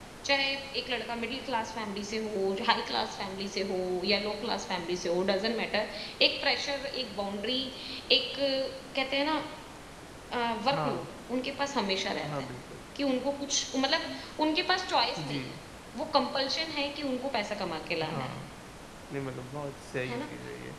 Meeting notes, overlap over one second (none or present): none